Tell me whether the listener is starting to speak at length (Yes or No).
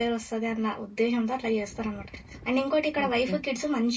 No